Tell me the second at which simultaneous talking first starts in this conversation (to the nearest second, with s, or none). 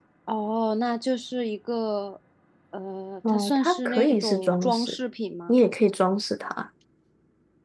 3 s